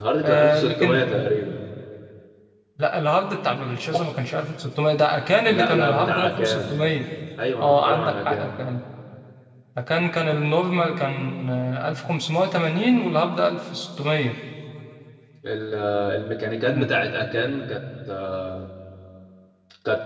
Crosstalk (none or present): present